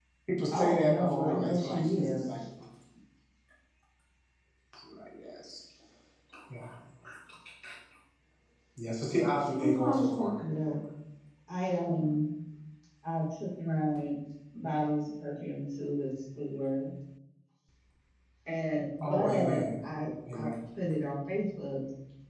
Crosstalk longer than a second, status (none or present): present